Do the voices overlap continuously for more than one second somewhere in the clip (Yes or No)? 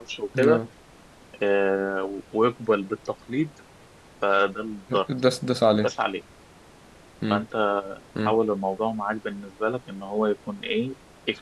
No